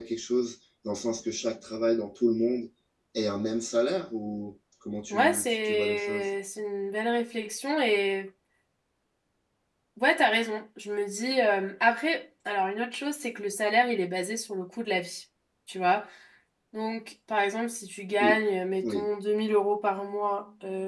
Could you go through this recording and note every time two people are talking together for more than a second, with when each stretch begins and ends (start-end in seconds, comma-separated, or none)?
5.1-6.3